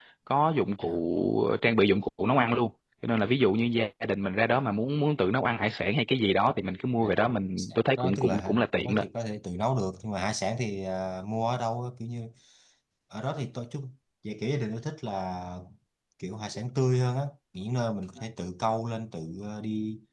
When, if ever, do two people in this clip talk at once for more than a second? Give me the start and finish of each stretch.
7.6-9.0

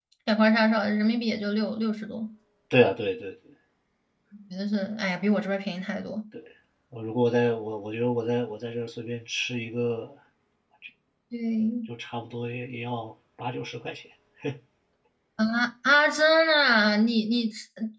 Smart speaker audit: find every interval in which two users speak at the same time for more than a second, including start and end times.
none

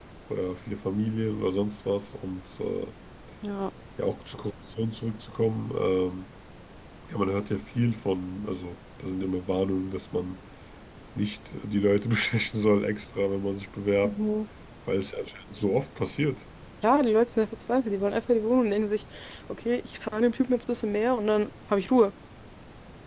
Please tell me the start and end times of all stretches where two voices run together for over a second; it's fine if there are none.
none

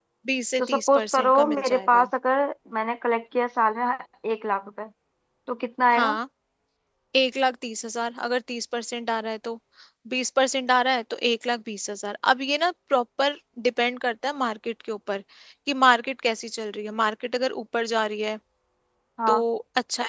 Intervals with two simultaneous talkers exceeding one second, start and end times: 0.6-2.1

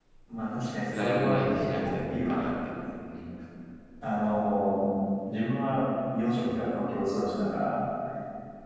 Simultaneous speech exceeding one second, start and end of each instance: 0.9-2.4

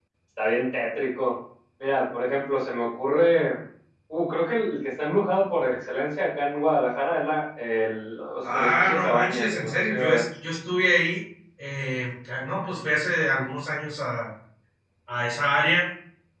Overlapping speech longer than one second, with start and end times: 8.5-10.2

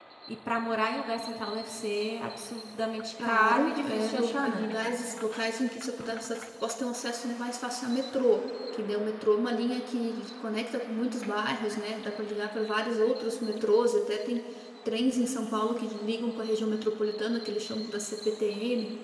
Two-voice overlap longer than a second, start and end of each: 3.2-4.6

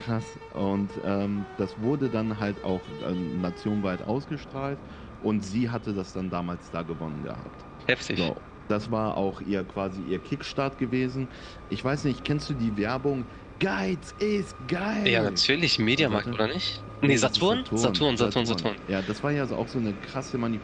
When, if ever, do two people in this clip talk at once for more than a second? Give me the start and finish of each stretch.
17.0-18.7

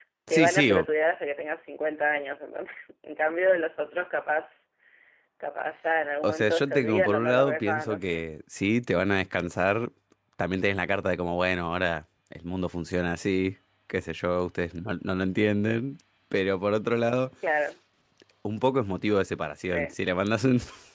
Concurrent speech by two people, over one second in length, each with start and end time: 6.2-8.2

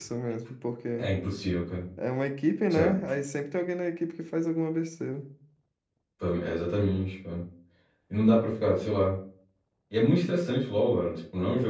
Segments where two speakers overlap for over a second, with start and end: none

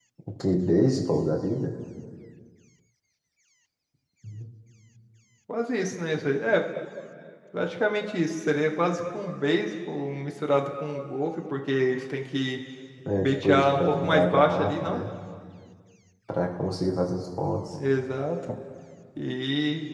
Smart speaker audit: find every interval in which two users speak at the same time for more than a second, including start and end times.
13.2-15.0

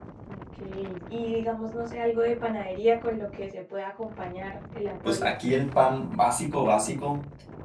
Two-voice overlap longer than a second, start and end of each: none

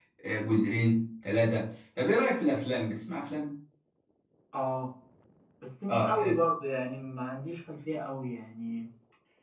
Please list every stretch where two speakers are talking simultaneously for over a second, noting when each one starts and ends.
none

